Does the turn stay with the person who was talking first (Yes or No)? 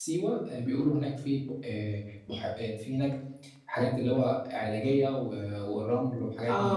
No